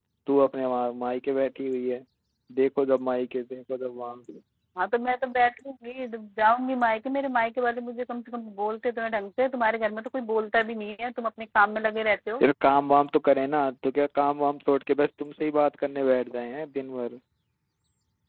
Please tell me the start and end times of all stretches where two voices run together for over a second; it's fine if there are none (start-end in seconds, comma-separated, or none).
none